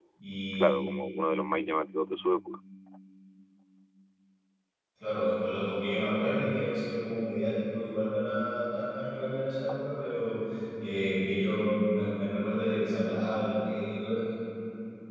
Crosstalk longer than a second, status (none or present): none